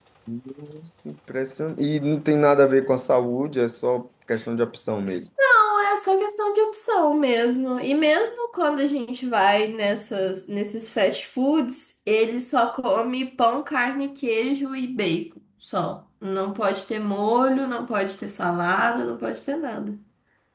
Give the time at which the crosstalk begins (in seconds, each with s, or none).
none